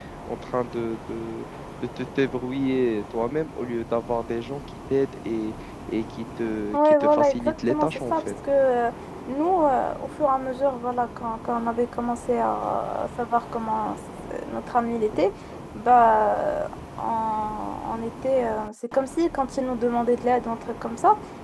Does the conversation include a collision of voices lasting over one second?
Yes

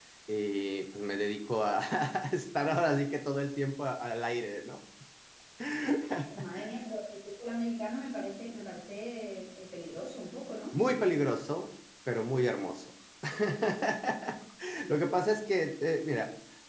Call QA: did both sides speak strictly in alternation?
Yes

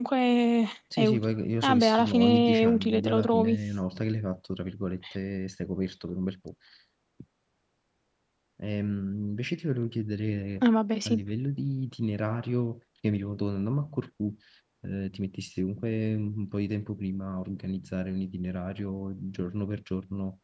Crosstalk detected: Yes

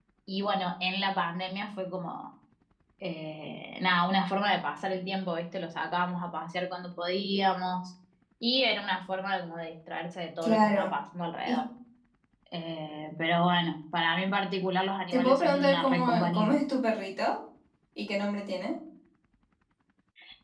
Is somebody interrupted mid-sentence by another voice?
Yes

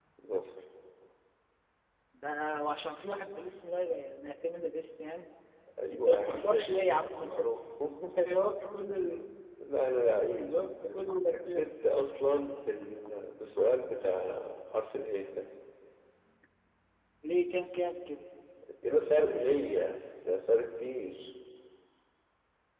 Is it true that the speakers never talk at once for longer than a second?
No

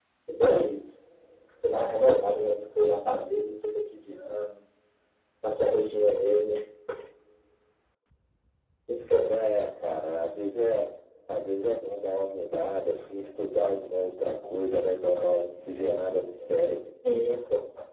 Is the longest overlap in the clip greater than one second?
No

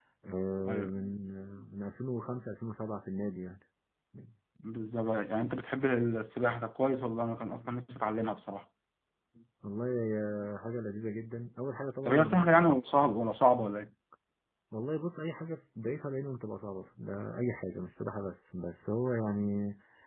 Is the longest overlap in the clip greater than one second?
No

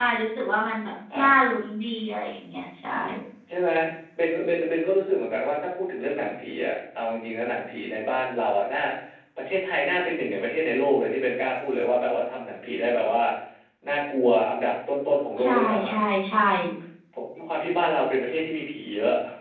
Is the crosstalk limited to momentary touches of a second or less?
Yes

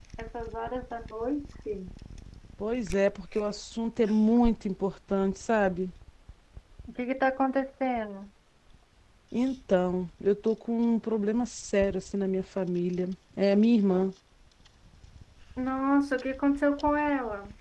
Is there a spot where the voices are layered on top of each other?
No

